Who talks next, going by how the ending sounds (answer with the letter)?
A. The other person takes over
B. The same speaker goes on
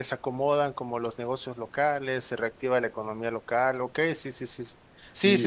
A